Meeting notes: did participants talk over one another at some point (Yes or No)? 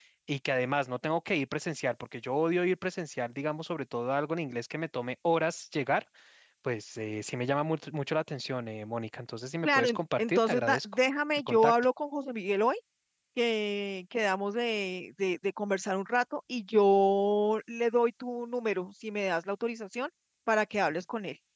Yes